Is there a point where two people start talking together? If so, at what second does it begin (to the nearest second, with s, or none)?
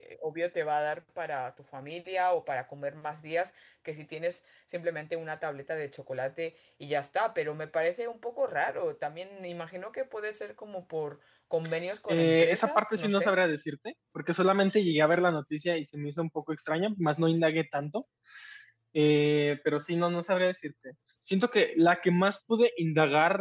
12 s